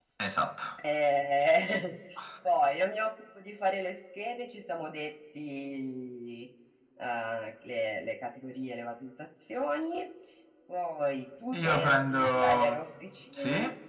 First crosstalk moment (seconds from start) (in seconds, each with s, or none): 11.5 s